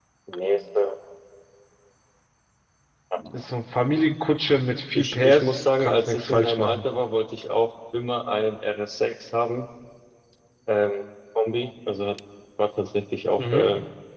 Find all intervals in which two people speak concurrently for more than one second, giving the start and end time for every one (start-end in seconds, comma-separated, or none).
5.0-6.8